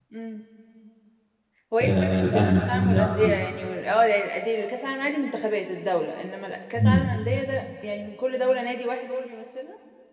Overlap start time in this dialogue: 2 s

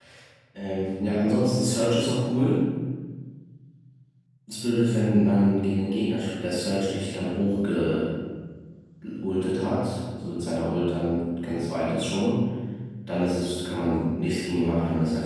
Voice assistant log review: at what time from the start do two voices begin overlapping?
none

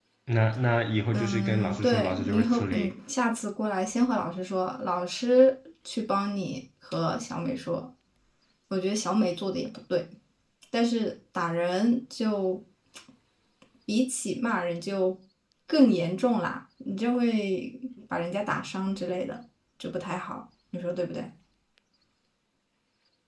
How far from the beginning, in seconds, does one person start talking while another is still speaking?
1 s

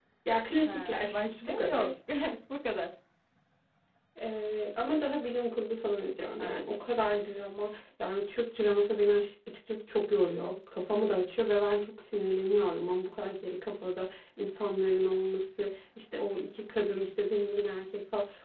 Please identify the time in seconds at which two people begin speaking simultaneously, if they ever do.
1 s

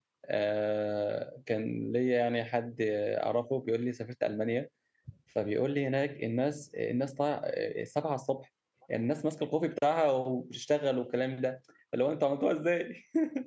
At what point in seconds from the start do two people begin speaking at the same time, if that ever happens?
none

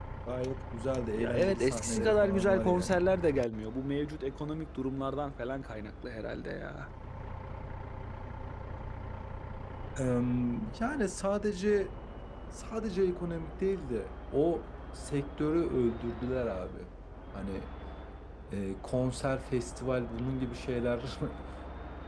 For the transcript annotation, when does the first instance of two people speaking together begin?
1 s

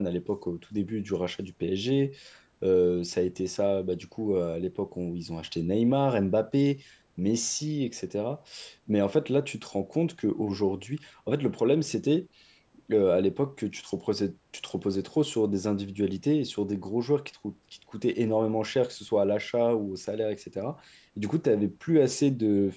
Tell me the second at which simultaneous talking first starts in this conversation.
none

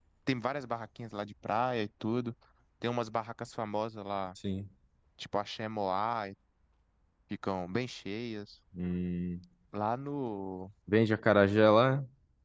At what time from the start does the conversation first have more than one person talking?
none

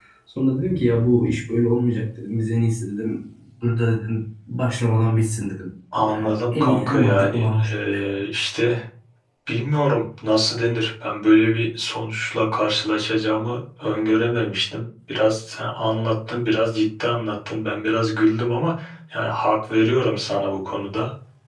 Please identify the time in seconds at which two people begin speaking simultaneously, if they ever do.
6 s

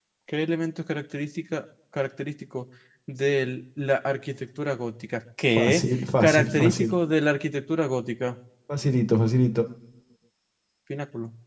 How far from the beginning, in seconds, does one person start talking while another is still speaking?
6 s

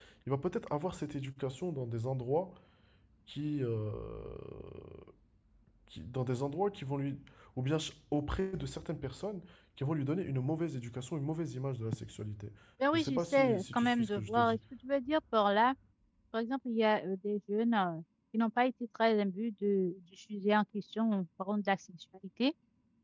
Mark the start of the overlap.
13 s

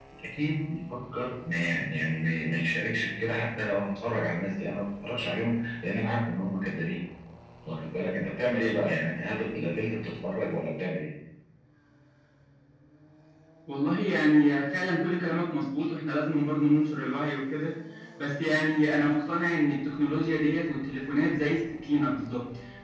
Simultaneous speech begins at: none

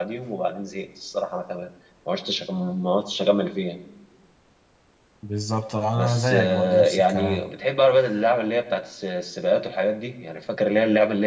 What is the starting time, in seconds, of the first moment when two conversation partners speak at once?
6 s

